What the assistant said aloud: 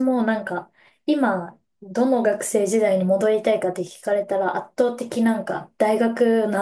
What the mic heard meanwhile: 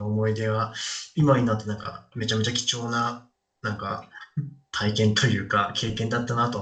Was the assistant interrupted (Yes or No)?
Yes